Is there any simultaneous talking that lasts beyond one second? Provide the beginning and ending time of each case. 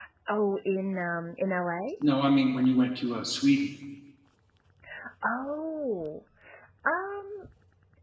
none

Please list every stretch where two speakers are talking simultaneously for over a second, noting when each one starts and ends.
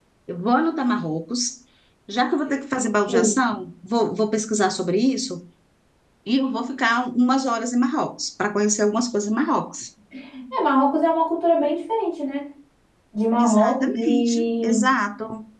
13.4-14.8

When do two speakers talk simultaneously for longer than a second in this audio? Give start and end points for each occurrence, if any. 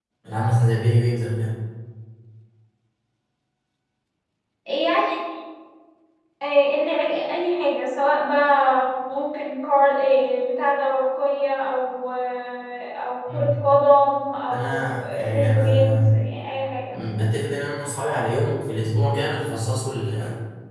14.5-16.2

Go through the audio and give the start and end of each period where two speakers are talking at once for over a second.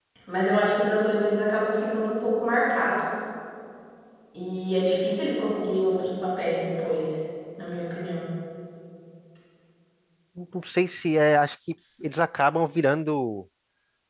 none

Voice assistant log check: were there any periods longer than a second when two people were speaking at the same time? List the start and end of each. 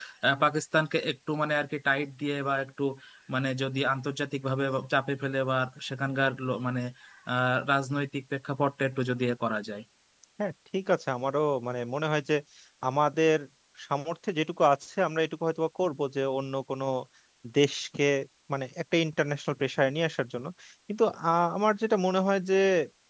none

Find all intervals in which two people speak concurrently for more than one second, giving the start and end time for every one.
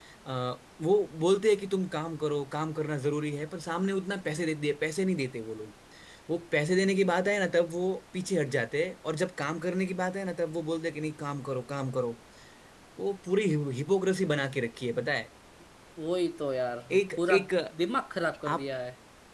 none

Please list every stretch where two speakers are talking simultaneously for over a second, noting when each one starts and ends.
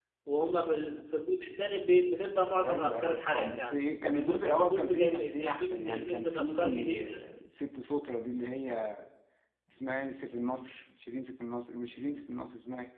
2.7-7.3

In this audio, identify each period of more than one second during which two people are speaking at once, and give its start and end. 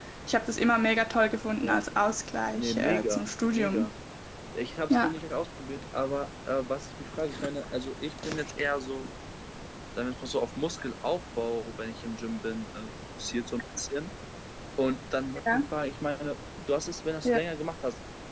2.5-3.9

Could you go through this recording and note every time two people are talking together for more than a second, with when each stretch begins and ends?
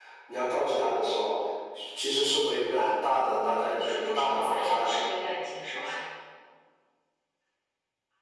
3.3-5.0

